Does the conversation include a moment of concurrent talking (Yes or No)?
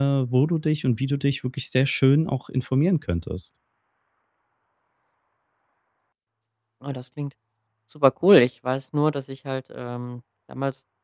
No